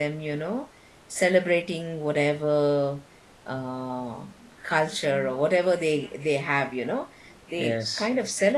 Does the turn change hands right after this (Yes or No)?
No